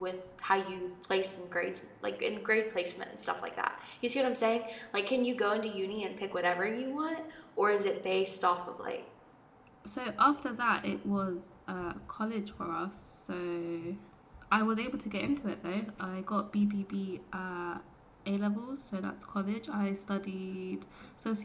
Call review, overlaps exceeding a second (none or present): none